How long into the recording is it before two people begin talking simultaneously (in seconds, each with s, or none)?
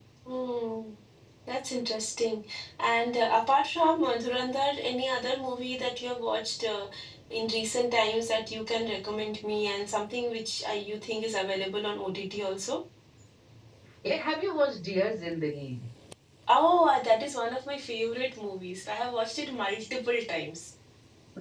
none